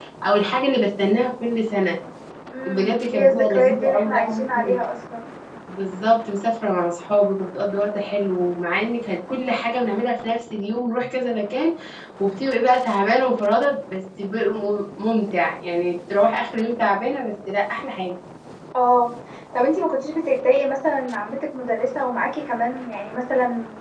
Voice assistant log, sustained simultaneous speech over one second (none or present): present